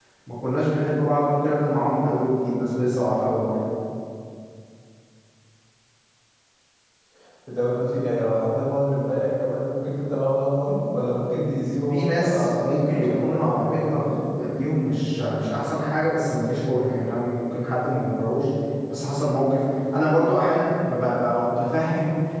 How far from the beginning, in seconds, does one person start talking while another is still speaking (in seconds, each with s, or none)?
11.9 s